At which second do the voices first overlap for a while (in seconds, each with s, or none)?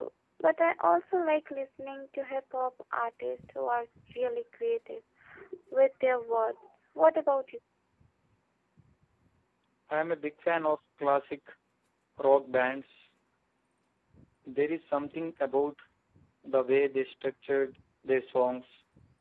none